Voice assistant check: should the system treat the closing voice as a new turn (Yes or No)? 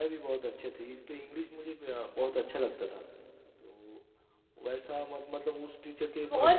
Yes